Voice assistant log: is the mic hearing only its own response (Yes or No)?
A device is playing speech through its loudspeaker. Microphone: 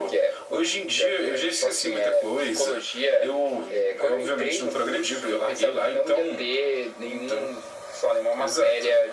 Yes